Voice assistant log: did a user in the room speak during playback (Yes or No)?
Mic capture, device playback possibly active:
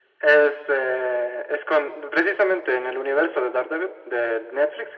No